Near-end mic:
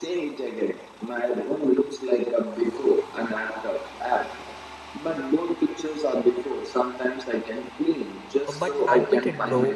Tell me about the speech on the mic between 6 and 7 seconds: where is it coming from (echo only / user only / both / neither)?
echo only